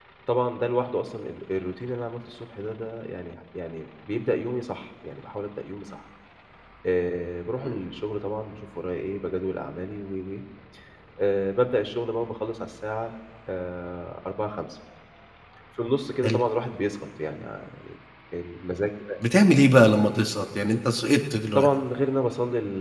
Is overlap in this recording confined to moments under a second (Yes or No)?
Yes